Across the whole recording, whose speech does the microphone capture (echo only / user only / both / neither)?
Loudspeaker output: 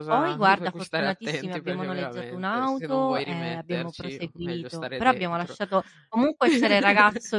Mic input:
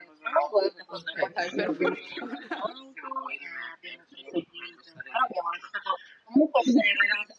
both